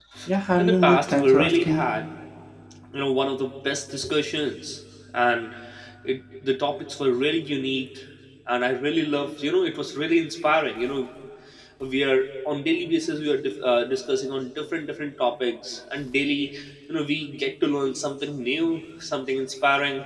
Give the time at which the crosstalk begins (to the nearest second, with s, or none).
1 s